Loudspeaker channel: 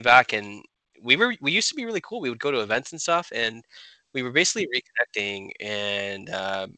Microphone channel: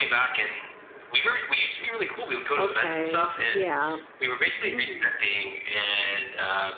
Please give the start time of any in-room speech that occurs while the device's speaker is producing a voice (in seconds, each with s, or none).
2.6 s